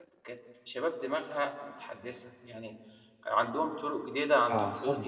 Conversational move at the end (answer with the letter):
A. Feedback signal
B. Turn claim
A